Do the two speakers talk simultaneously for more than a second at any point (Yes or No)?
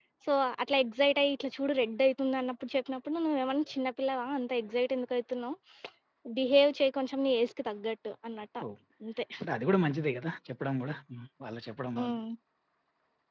No